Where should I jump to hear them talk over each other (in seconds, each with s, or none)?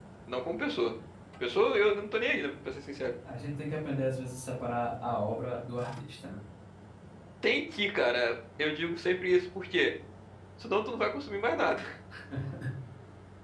none